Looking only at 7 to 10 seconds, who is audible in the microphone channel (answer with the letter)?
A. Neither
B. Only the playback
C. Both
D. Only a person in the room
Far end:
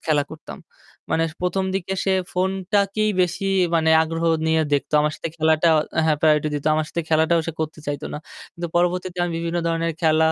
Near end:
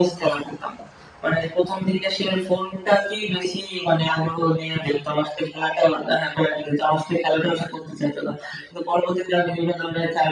B